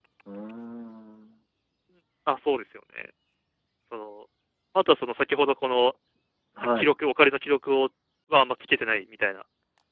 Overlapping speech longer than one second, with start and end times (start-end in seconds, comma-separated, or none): none